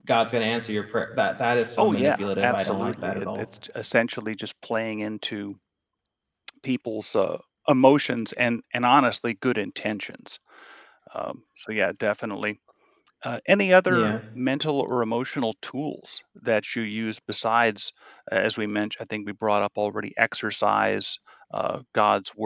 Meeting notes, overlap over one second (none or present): present